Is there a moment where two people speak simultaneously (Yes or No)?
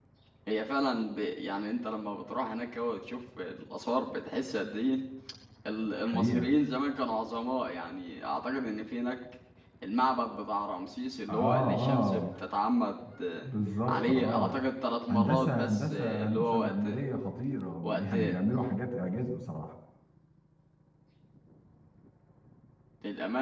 Yes